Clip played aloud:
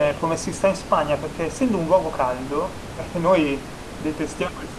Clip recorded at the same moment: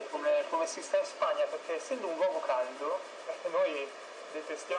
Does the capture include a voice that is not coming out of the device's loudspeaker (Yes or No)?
No